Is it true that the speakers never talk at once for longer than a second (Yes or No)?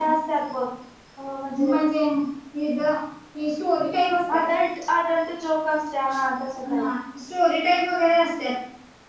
Yes